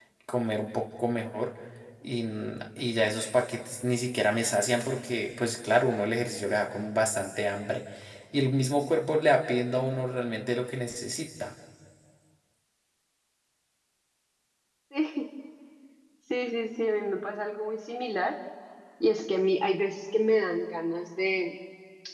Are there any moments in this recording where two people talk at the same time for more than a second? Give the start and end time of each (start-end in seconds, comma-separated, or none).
none